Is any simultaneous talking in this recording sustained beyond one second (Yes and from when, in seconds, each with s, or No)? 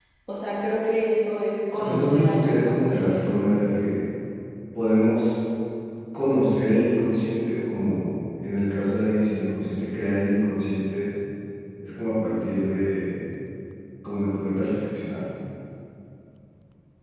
Yes, from 1.8 s